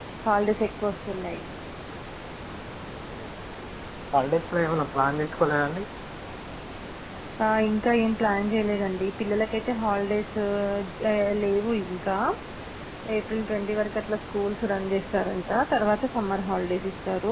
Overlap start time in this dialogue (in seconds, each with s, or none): none